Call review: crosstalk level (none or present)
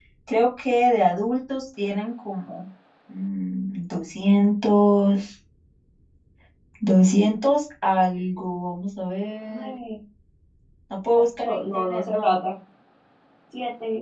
present